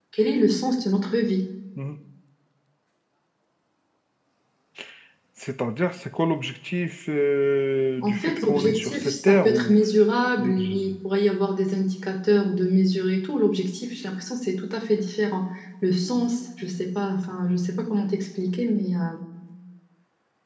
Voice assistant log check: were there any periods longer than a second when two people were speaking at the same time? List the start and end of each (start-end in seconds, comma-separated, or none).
8.0-9.8